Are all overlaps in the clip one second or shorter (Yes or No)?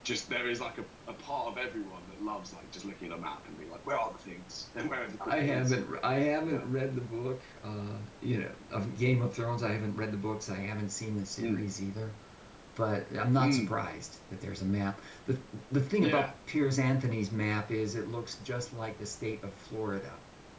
Yes